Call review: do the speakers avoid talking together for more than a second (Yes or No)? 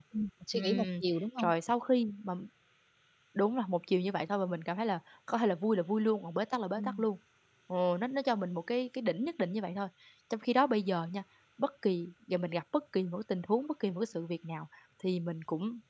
Yes